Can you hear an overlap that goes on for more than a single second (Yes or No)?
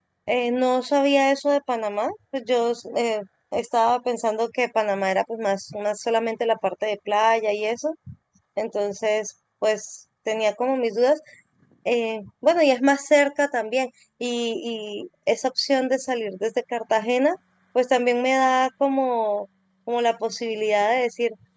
No